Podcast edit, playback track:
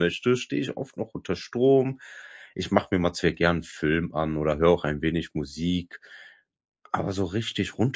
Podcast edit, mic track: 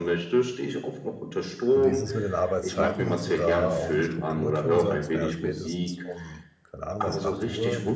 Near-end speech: present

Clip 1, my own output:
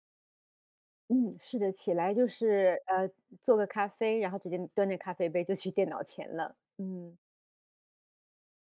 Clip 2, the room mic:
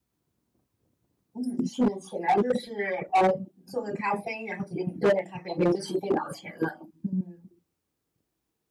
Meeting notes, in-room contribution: none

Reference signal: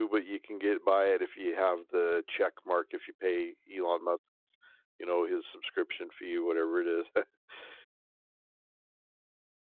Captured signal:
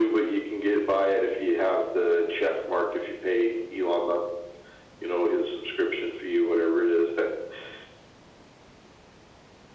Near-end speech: none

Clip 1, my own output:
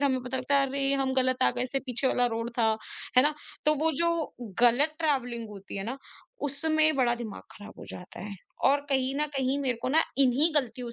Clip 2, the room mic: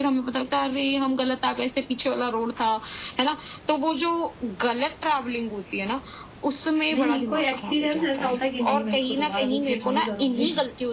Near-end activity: present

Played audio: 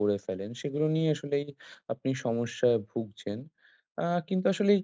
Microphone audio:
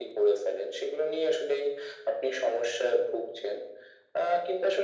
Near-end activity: none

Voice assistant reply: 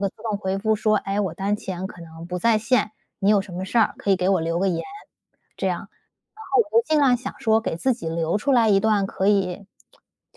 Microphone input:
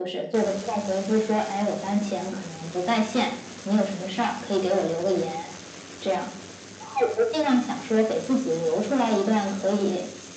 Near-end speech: none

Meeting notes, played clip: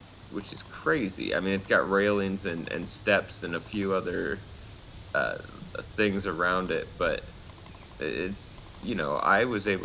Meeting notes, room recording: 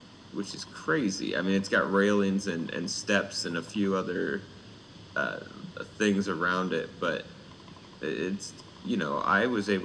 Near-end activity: none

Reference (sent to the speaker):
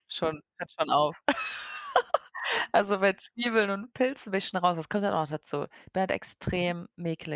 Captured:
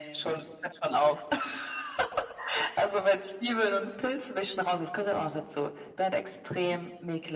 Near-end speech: none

